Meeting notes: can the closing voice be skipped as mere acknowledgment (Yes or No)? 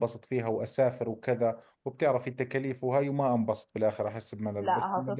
No